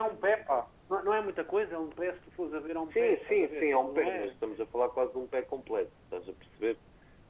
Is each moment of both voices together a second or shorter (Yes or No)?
No